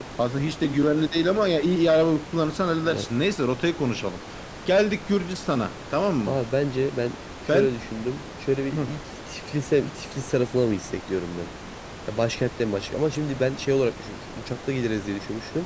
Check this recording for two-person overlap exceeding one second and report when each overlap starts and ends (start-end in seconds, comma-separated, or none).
none